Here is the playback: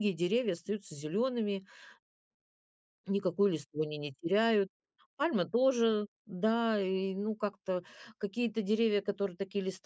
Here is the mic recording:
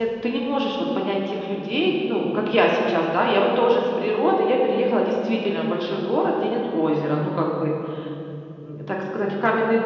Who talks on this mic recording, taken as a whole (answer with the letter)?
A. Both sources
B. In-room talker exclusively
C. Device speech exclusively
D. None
B